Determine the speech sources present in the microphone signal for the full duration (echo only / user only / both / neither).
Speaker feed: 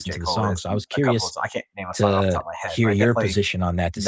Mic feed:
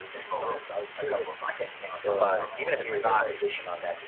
both